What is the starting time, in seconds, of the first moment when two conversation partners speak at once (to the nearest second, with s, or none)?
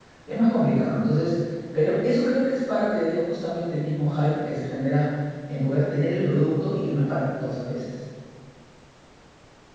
none